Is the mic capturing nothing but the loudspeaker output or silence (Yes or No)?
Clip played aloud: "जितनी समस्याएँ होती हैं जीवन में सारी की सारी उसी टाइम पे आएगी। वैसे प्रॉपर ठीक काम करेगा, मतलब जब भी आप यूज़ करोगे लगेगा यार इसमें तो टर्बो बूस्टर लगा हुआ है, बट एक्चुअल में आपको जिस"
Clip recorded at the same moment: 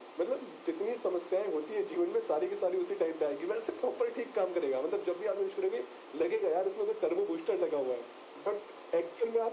Yes